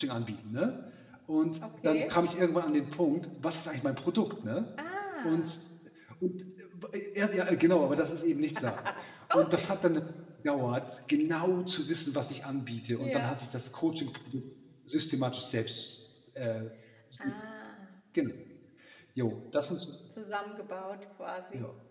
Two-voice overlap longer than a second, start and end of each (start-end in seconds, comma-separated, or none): none